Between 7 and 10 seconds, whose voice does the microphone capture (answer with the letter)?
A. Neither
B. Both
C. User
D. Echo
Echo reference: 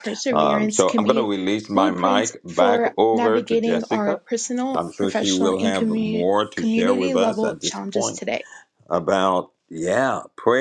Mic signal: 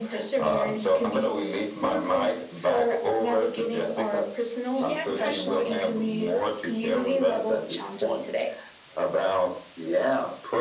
D